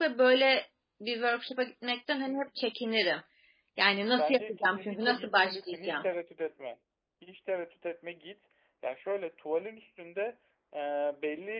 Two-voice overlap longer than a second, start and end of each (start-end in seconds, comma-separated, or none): 4.2-6.1